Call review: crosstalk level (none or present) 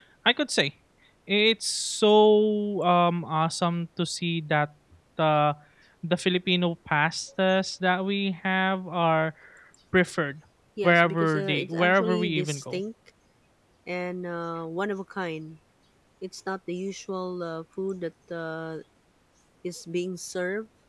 present